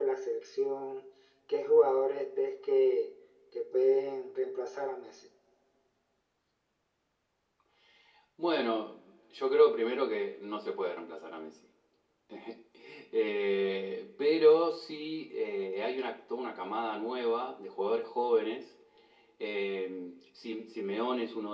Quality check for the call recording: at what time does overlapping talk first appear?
none

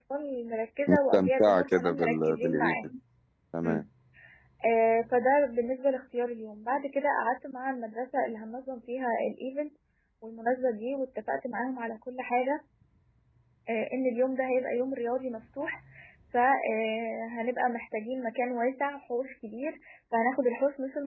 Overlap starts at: 0.9 s

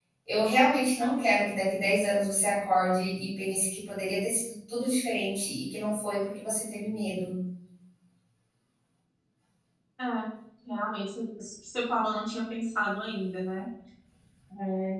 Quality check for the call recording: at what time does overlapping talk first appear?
none

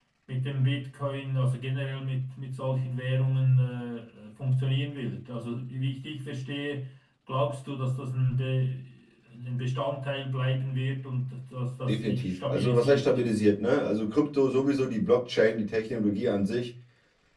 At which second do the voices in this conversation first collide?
11.9 s

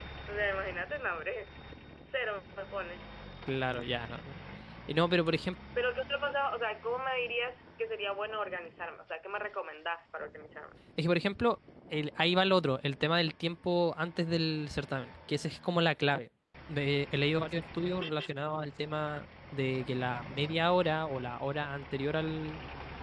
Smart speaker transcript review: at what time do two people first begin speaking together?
none

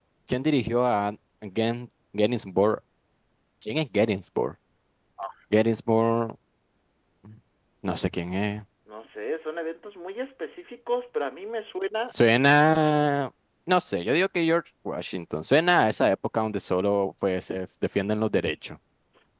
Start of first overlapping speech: none

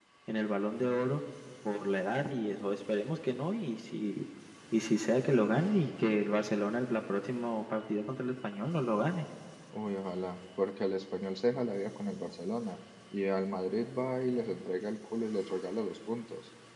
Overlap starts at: none

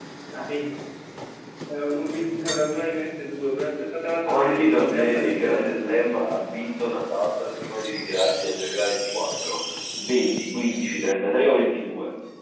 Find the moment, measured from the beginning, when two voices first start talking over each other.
4.3 s

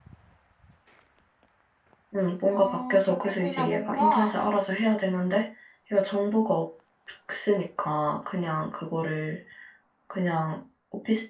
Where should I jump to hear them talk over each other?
2.5 s

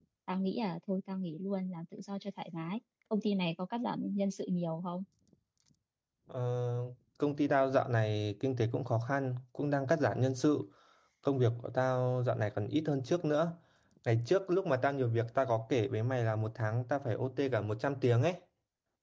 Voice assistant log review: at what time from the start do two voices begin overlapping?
none

